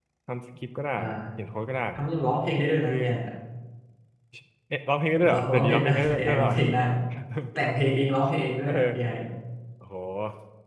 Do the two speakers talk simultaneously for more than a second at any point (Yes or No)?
Yes